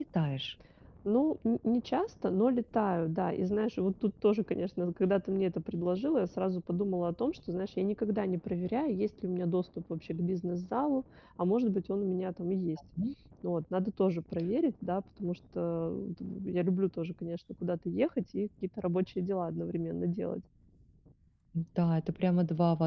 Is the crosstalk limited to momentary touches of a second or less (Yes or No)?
Yes